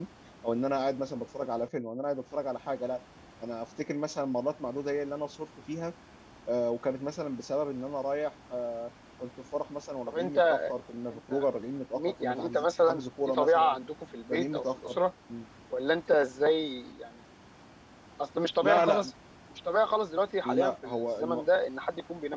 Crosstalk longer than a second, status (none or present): present